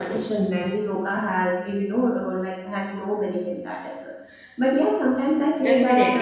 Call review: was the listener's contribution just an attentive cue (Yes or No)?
No